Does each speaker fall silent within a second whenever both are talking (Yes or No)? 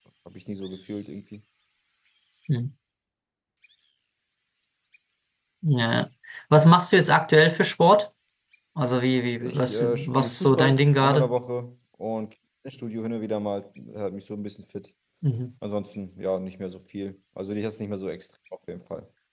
No